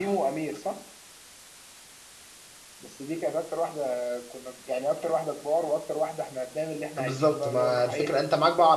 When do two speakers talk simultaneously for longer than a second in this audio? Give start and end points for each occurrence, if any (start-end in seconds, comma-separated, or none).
7.0-8.2